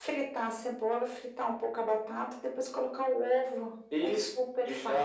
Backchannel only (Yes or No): No